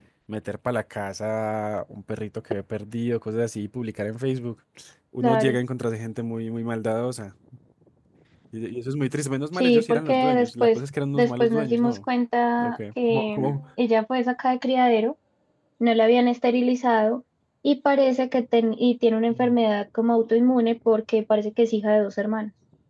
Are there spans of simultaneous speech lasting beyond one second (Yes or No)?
Yes